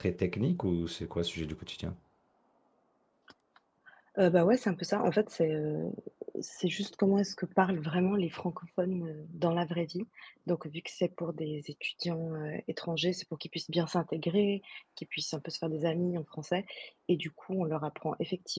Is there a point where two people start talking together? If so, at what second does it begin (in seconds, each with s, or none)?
none